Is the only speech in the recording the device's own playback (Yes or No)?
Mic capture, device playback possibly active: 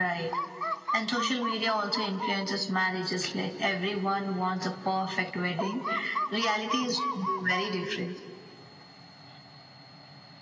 Yes